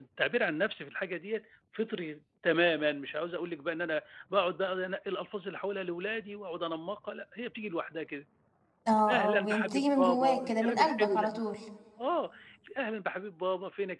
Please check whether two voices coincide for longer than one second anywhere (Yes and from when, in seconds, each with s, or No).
Yes, from 9.1 s